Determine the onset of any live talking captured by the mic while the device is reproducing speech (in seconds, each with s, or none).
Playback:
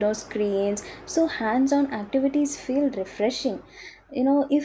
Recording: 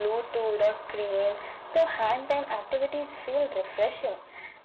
none